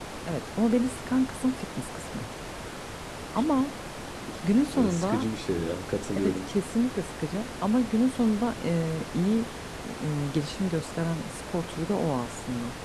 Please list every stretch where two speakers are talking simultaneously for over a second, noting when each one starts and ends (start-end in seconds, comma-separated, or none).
none